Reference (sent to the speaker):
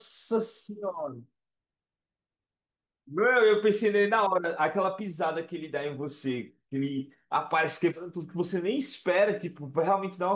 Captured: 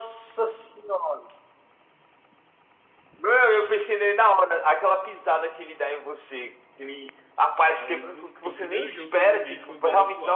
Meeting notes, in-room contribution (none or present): present